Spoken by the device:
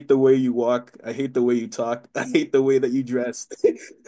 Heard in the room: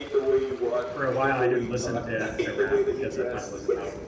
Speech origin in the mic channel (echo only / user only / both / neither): both